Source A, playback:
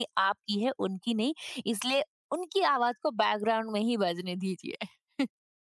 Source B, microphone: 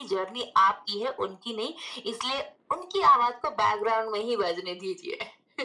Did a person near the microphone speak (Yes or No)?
No